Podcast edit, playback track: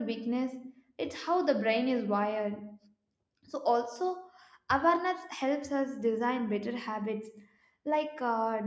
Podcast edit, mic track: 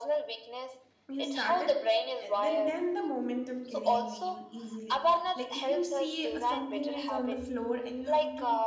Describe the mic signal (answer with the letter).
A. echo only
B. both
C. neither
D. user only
B